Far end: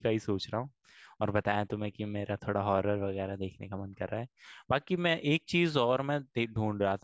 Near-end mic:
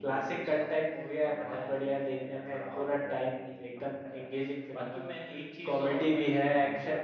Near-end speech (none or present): present